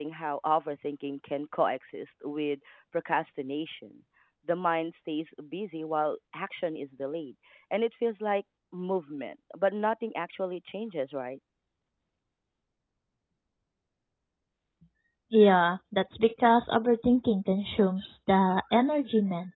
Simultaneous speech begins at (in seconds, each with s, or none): none